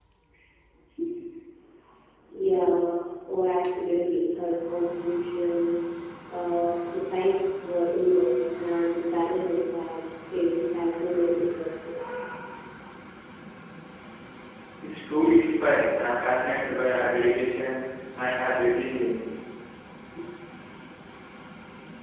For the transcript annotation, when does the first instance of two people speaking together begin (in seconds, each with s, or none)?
none